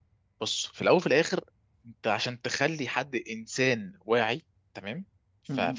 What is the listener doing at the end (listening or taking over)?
listening